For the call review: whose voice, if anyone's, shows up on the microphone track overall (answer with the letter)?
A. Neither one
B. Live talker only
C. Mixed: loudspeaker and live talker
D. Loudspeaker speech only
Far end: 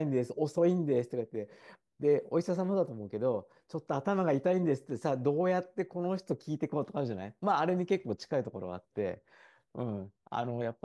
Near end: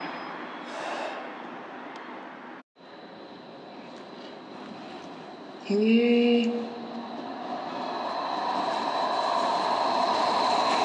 B